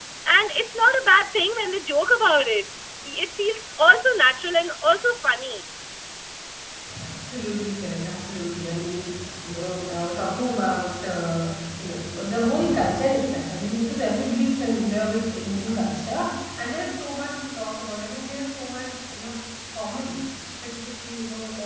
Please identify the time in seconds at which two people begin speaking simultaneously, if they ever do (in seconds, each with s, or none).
none